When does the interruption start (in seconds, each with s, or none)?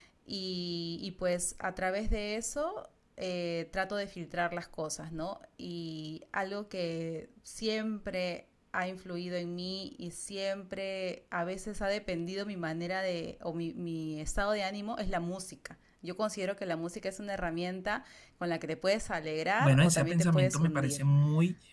19.6 s